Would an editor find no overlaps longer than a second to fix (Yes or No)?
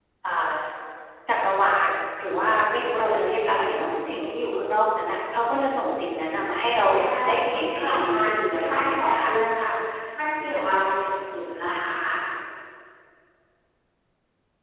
No